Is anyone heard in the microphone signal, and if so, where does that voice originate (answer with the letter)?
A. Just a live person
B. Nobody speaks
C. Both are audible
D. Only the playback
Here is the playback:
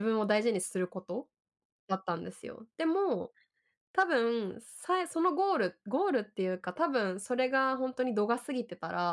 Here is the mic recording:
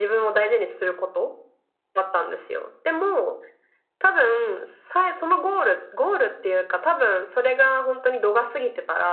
D